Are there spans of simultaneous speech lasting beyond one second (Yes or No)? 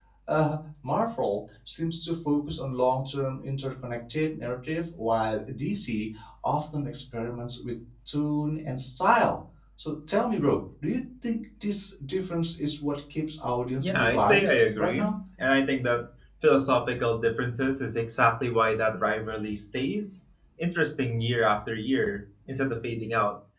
Yes